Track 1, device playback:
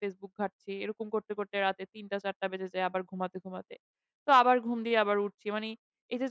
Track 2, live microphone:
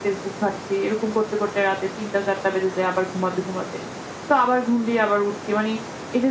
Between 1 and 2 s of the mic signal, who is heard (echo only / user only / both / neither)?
echo only